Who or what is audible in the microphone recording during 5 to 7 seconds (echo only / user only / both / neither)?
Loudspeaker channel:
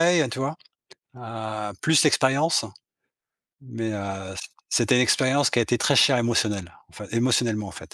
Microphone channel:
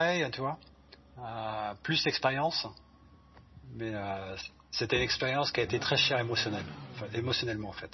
echo only